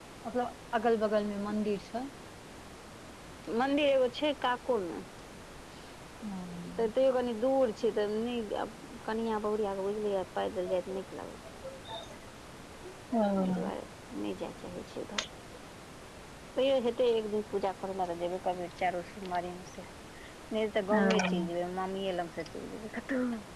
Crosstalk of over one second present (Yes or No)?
No